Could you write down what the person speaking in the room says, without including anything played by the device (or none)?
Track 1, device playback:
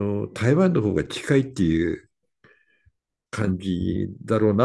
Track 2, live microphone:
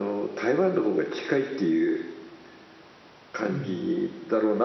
うん